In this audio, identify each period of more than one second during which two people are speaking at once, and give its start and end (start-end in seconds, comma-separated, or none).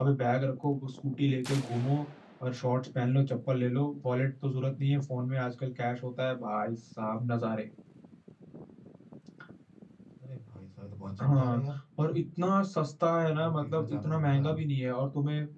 13.2-14.6